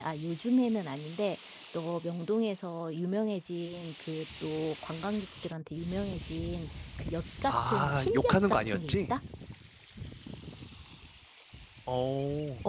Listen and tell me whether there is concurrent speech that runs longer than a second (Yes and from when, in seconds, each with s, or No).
Yes, from 7.5 s